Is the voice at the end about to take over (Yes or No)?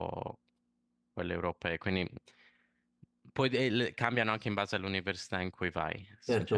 Yes